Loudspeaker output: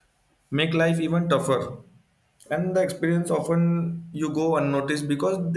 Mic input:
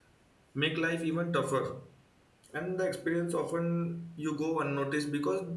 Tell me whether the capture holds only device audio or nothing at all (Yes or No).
Yes